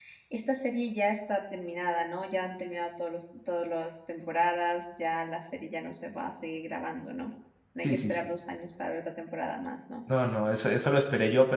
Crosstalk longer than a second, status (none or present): none